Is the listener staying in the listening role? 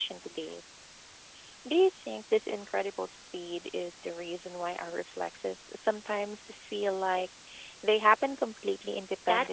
No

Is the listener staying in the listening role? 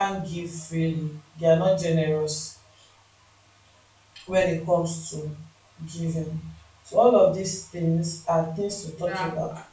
No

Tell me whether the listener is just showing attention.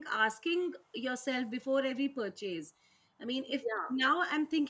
Yes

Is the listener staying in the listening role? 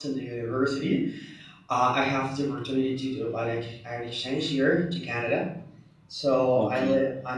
Yes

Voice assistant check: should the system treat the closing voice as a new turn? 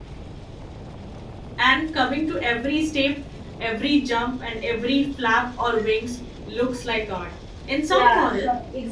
Yes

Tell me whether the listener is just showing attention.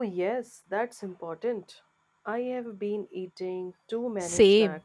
No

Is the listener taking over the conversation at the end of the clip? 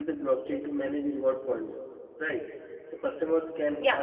No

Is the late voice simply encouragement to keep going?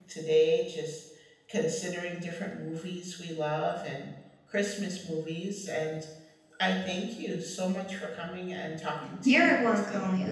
No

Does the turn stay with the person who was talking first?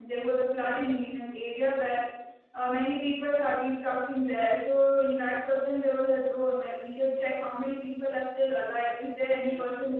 Yes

